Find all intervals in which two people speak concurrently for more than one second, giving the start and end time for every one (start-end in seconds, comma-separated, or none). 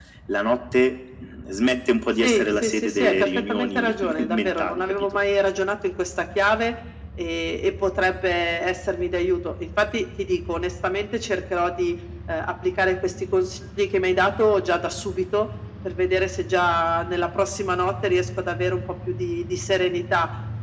2.2-4.9